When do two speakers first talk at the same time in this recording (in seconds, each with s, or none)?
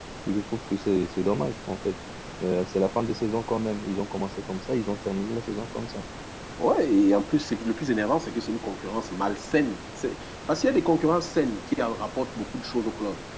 none